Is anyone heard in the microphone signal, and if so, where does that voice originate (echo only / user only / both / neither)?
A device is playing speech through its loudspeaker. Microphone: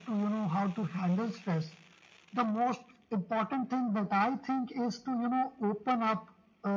echo only